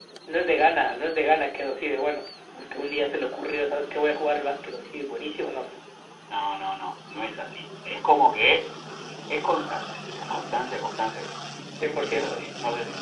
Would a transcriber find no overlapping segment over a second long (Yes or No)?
Yes